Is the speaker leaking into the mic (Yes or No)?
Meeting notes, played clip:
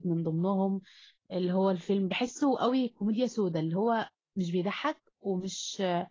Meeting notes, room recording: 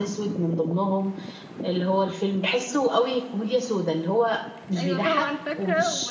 Yes